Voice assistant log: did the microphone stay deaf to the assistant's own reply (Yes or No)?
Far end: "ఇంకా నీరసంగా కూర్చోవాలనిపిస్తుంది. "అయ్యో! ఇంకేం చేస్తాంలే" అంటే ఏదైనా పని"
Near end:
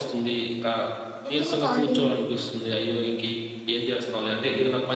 No